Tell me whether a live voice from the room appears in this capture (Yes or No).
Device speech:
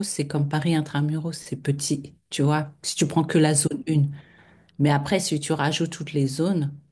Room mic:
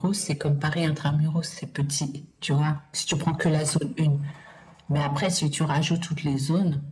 No